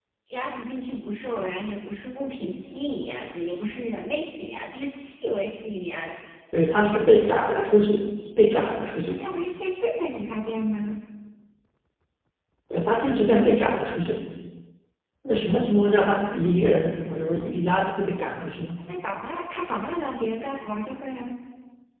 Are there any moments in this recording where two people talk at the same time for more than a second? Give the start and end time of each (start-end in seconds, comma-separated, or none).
none